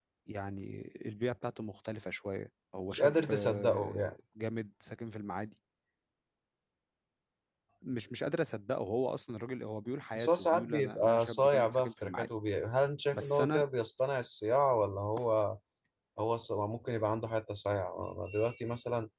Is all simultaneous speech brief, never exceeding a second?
No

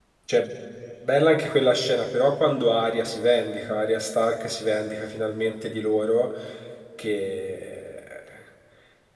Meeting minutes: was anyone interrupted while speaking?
No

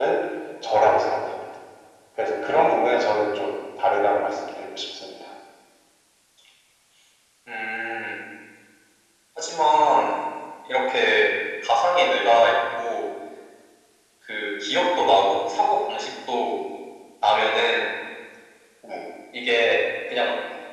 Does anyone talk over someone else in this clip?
No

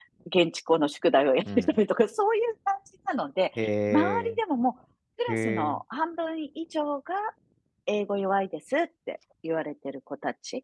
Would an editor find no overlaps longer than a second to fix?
Yes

